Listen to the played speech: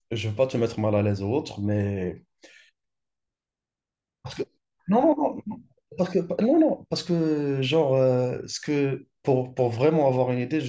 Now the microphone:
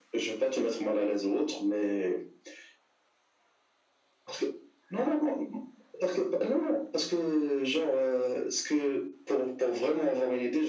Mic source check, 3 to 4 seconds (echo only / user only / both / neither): neither